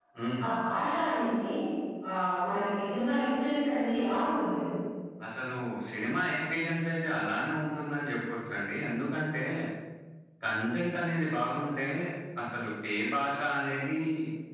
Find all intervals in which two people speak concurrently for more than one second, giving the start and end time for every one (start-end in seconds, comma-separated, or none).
none